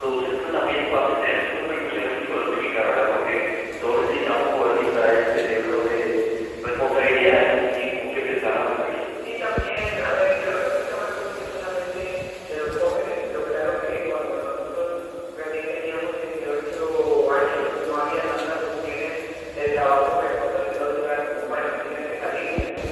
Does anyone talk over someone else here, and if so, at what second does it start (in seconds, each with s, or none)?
none